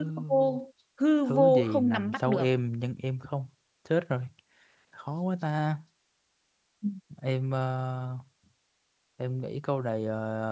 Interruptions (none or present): present